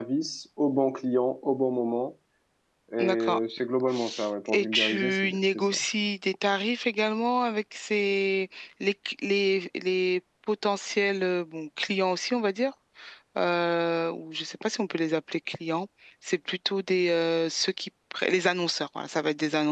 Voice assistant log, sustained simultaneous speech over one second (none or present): present